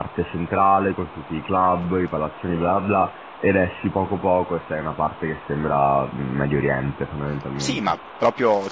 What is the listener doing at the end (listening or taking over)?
taking over